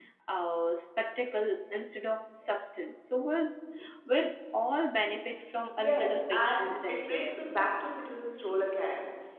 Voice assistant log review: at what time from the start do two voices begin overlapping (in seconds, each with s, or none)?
5.8 s